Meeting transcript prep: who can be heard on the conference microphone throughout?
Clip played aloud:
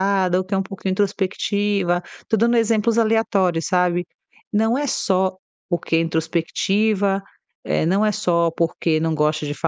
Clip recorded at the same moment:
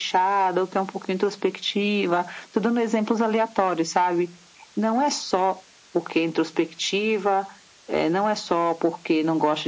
echo only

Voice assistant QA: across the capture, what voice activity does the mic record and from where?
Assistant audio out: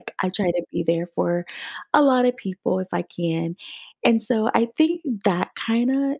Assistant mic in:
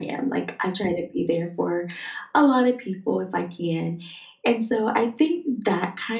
echo only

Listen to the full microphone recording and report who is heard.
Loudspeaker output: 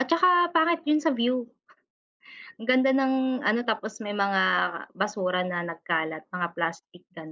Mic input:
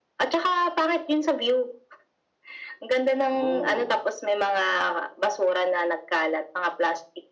both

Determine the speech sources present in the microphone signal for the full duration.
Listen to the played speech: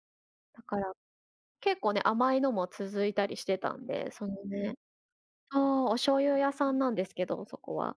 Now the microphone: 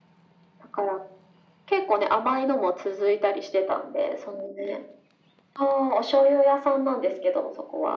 echo only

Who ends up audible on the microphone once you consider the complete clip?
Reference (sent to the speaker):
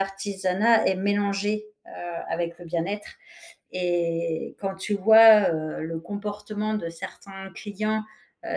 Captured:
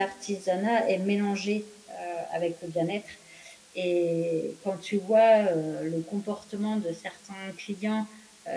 echo only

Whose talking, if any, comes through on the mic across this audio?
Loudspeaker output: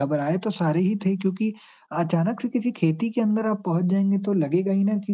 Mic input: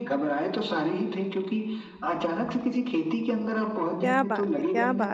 both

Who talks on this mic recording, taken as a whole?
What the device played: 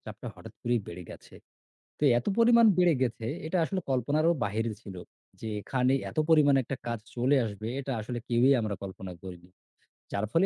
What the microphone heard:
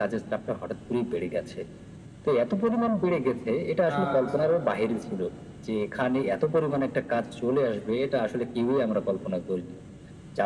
both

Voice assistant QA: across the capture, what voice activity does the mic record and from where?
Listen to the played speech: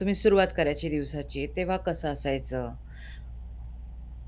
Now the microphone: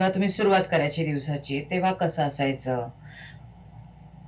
echo only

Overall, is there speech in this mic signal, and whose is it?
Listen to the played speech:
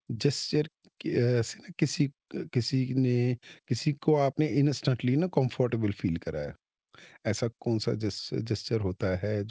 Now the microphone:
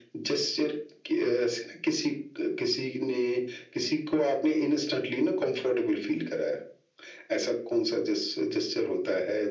echo only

